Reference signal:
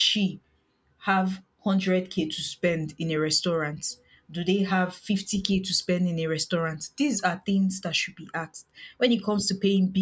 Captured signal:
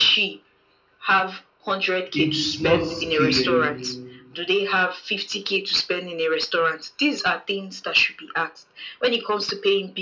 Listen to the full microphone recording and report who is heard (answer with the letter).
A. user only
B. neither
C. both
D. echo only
C